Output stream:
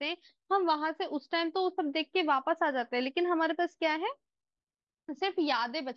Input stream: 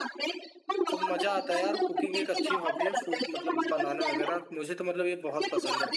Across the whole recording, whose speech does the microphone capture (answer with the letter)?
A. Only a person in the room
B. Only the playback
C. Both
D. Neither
C